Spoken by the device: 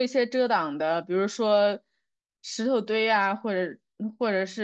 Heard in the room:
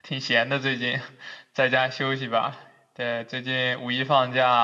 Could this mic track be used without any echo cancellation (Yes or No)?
Yes